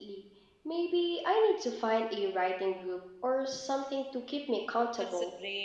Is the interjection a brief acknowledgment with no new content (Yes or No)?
No